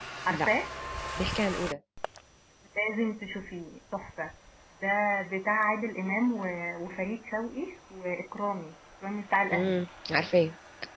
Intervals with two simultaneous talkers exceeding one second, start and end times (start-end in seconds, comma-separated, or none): none